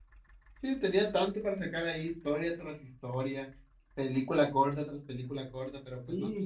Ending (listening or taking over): taking over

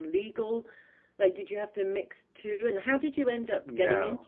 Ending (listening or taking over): taking over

